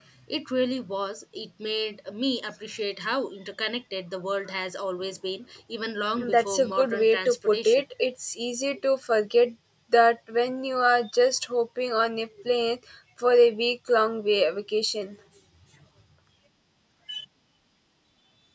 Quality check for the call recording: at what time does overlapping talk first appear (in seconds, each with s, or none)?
6.2 s